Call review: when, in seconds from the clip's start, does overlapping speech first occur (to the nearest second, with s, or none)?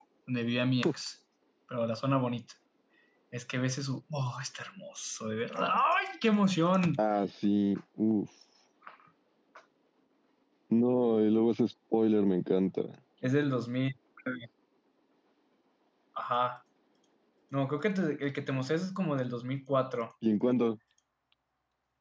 none